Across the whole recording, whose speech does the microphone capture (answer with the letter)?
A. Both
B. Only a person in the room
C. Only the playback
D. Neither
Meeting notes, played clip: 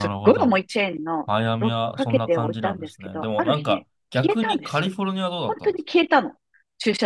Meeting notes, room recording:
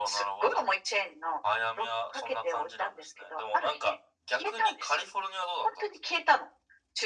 C